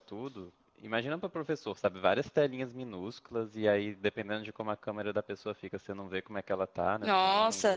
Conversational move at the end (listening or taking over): taking over